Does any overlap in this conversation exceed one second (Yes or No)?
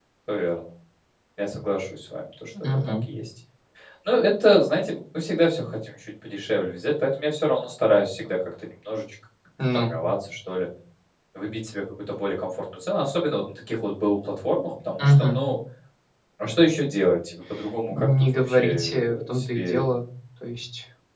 Yes